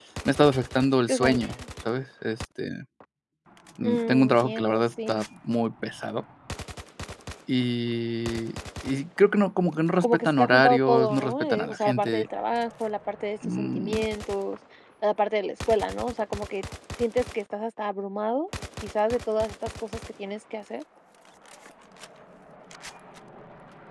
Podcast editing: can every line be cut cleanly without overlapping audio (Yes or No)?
No